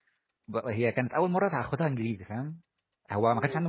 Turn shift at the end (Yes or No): No